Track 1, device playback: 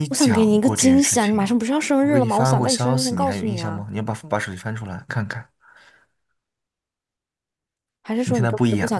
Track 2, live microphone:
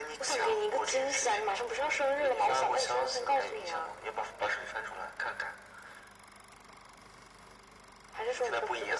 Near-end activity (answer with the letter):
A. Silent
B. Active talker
A